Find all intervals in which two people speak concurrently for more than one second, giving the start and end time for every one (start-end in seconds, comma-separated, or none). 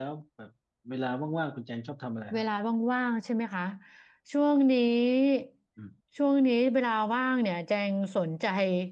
none